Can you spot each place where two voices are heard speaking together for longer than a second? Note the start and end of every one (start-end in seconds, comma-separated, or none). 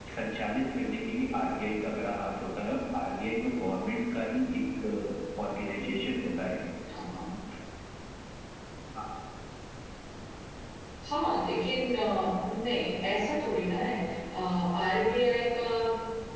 none